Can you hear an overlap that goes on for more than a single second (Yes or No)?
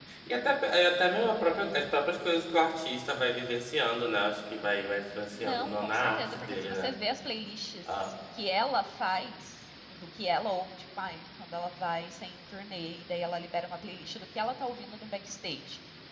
Yes